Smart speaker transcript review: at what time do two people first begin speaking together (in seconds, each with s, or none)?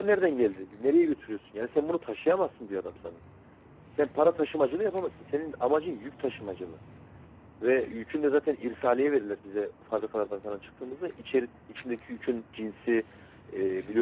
none